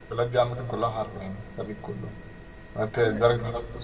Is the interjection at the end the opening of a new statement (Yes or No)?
No